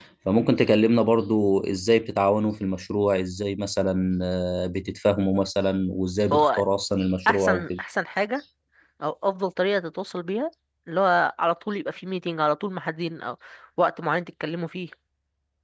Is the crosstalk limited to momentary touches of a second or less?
Yes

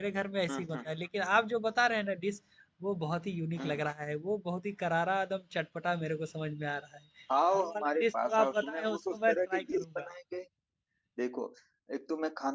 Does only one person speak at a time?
No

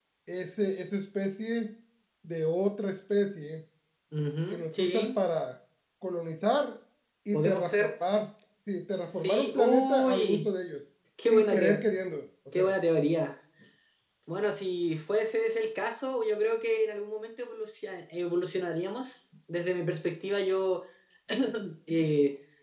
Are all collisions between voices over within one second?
No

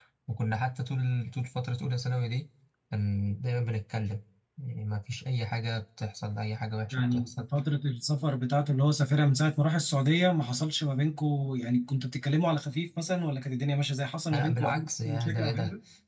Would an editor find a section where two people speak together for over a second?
Yes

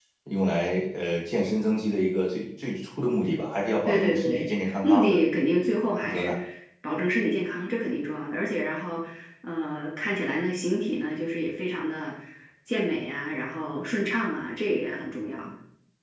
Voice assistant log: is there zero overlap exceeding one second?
No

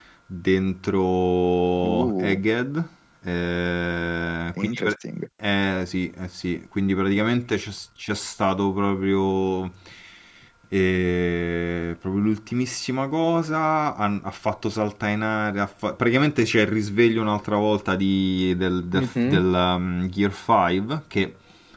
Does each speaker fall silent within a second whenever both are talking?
Yes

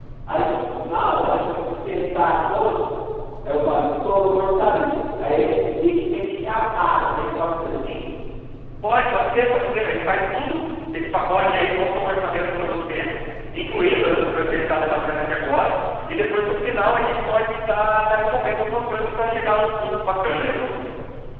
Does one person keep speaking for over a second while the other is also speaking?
No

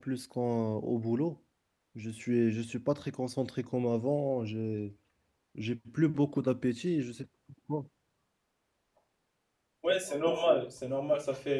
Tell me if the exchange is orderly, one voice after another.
Yes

